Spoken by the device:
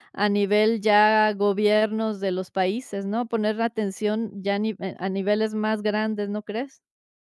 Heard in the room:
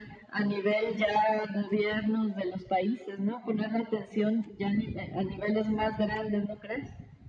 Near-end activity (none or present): none